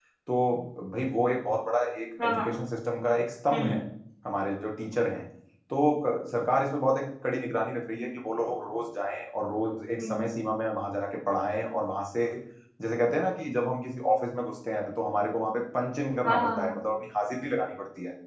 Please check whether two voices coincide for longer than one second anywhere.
No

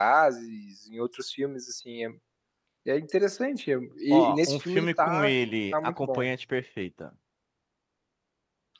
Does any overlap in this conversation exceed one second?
Yes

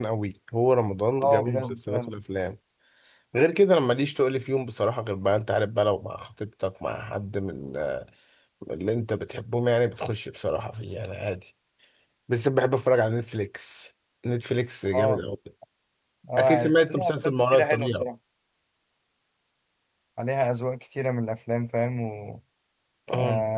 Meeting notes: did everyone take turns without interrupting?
No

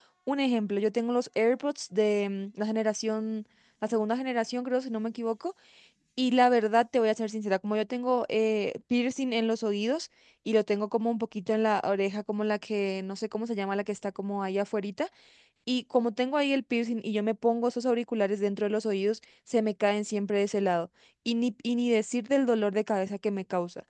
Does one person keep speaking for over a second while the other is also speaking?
No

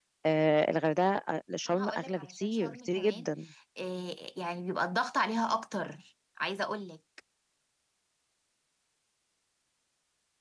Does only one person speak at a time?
No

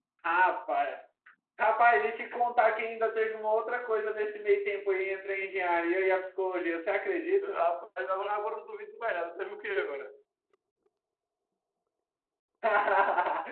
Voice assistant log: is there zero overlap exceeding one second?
Yes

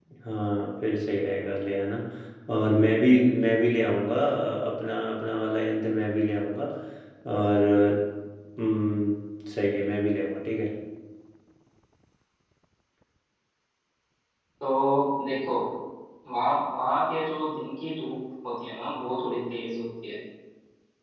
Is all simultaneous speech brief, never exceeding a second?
Yes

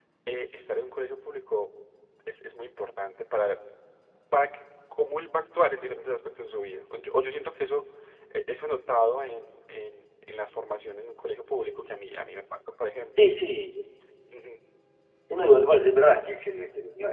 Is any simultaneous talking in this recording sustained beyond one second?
No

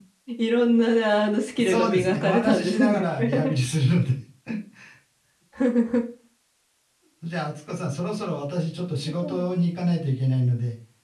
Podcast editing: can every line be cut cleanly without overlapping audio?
No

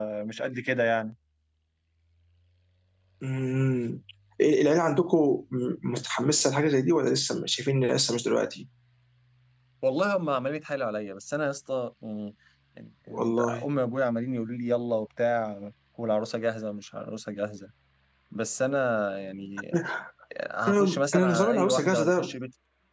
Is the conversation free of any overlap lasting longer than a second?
No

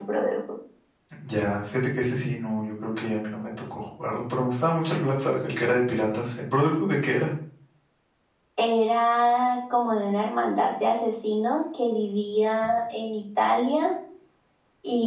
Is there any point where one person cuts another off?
No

